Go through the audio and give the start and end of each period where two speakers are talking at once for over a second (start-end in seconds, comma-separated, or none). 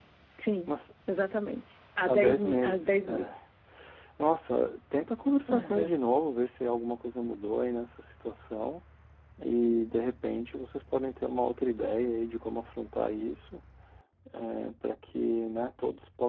2.1-3.3